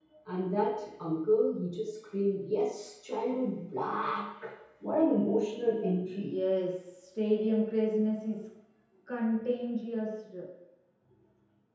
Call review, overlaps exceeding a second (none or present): none